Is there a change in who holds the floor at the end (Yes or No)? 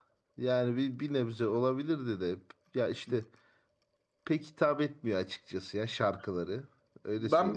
Yes